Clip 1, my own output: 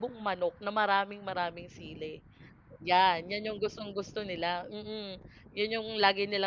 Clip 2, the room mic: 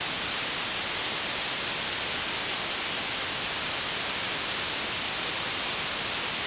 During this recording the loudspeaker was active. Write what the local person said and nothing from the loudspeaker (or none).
none